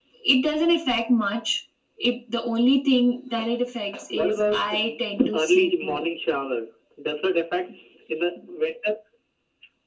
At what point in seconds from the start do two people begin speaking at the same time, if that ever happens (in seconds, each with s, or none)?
4.1 s